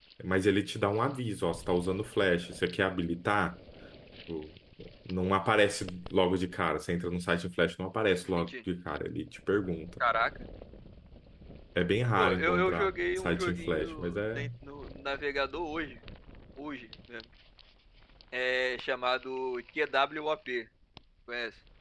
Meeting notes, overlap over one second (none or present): present